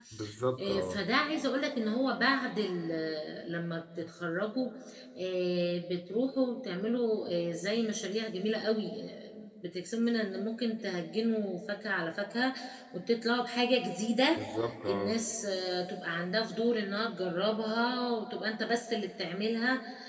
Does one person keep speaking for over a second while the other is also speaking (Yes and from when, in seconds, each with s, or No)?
No